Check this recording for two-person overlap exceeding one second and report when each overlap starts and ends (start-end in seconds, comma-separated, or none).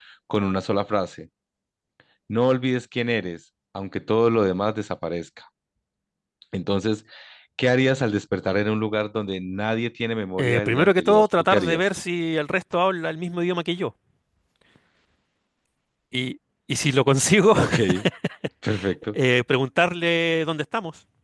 10.4-11.8